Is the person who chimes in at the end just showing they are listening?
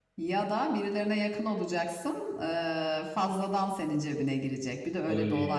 No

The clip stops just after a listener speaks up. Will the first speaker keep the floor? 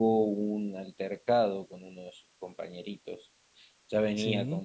Yes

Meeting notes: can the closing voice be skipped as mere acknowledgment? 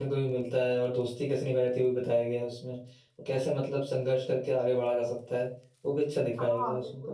No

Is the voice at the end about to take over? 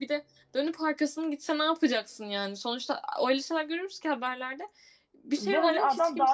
Yes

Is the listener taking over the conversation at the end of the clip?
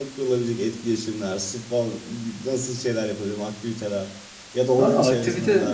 Yes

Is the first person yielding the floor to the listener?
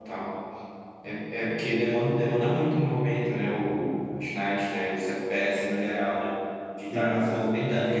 No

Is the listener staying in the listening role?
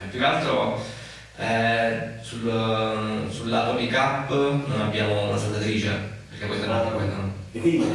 No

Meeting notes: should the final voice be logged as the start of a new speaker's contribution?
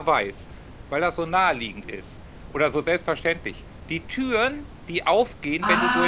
Yes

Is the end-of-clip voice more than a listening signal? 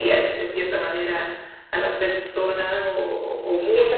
Yes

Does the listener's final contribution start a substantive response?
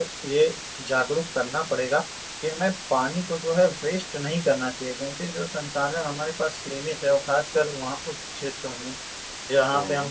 No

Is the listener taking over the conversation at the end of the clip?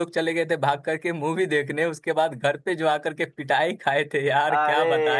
Yes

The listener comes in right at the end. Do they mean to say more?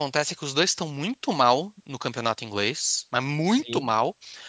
No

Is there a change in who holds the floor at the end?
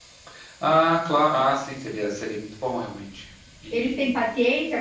Yes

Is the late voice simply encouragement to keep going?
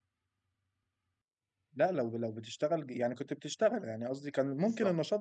Yes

